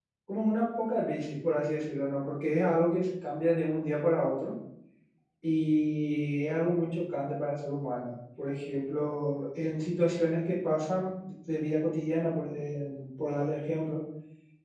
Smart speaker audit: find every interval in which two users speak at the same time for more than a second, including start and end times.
none

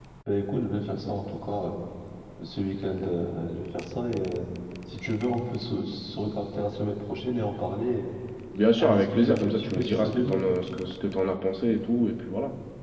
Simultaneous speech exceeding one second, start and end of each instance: 8.8-10.4

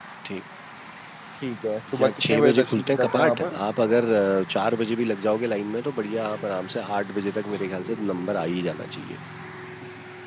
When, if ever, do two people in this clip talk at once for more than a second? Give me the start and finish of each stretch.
2.0-3.6

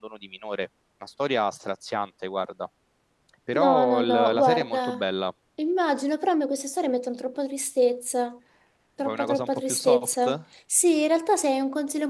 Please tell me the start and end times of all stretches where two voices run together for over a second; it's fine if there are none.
3.5-5.0, 9.0-10.4

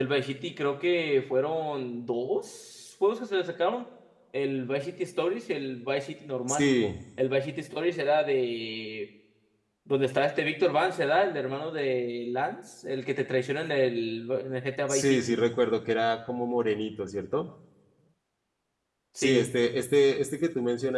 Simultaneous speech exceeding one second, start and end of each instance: none

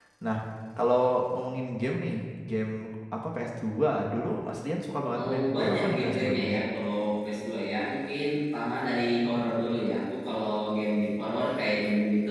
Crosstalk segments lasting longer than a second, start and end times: 5.2-6.5

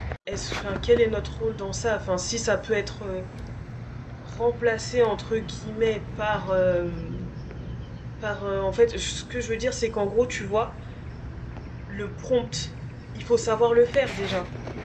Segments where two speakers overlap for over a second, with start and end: none

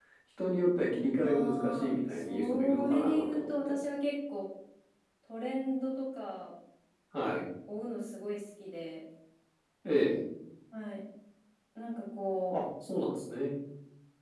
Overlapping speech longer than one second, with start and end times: 1.2-3.8

